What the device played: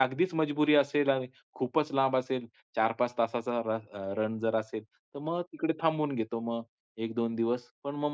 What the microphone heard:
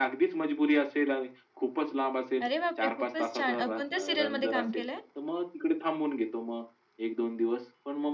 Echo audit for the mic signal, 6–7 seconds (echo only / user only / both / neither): echo only